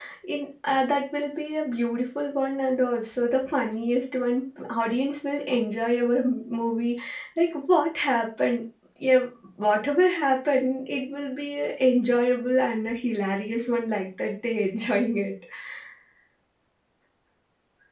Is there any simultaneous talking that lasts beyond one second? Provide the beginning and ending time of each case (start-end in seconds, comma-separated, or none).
none